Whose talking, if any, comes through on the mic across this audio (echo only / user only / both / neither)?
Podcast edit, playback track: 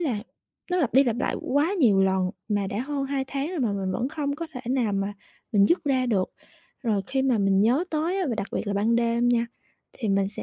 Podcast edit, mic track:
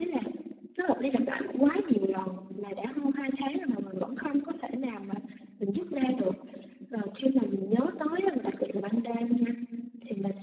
echo only